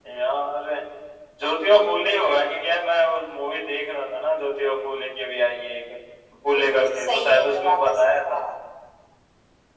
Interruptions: present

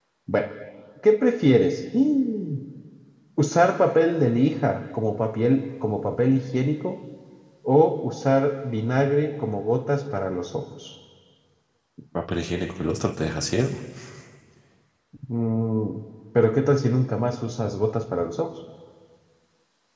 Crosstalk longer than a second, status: none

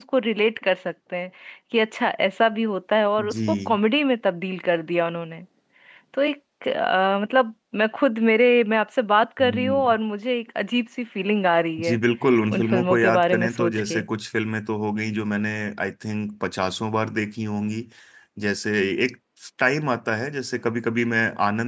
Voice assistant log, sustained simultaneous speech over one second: present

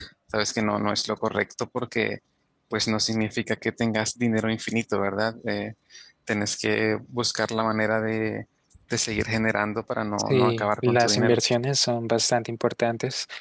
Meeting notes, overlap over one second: present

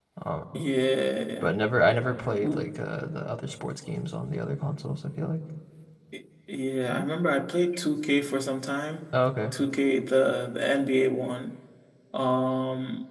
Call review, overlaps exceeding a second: none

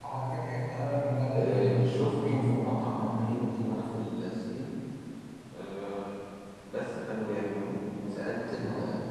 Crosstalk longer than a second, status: present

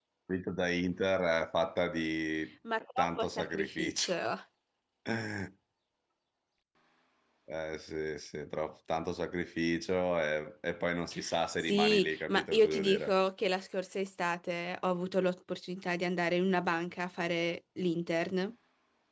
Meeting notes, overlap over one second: present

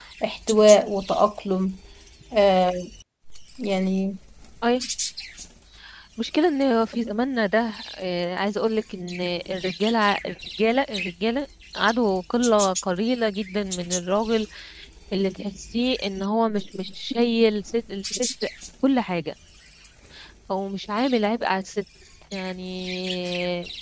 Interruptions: none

